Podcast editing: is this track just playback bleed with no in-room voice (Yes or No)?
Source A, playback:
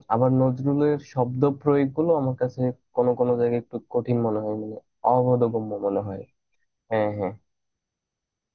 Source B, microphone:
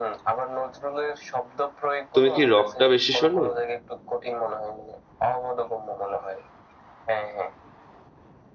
No